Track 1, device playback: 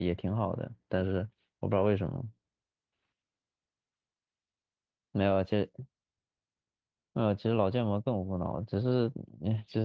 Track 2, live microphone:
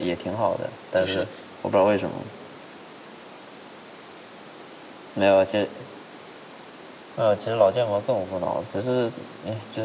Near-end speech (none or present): present